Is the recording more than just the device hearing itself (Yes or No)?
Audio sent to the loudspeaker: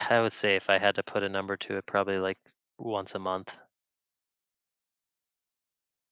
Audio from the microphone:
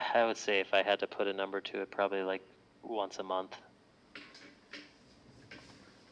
No